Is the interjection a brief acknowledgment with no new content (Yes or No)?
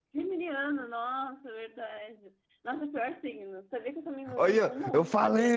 No